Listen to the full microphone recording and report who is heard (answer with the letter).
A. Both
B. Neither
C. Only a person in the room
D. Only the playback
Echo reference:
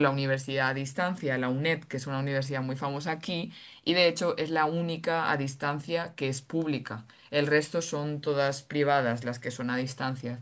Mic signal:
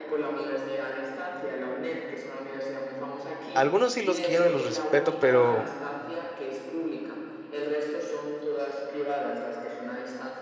A